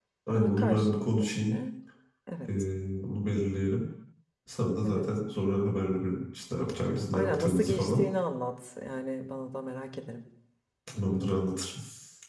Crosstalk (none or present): present